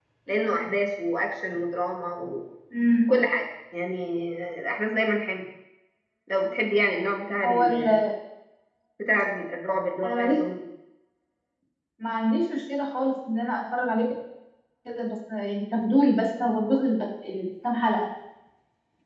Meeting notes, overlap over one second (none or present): none